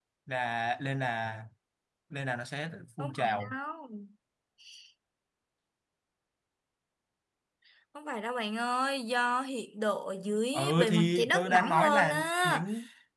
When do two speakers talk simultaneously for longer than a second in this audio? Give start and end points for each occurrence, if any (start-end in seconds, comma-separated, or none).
10.5-12.7